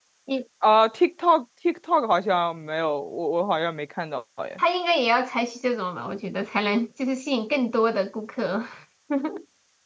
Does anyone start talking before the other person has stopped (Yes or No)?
No